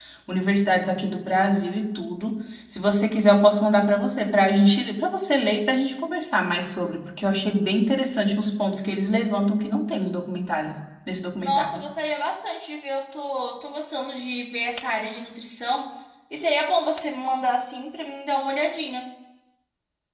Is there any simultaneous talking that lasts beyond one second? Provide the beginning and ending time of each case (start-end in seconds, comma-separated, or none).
none